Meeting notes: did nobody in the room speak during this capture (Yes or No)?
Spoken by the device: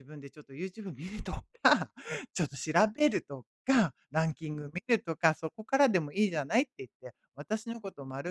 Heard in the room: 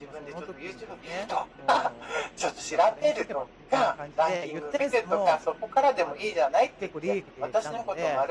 No